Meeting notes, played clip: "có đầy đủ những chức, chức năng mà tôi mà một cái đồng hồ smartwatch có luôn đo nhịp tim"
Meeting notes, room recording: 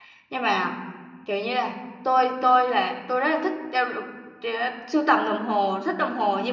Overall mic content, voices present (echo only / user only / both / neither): user only